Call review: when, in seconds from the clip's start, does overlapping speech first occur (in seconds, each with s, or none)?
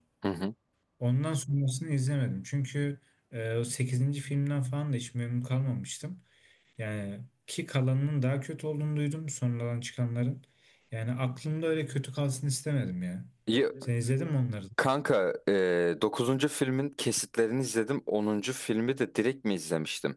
none